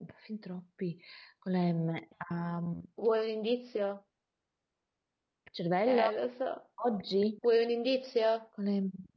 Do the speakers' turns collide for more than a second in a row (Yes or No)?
No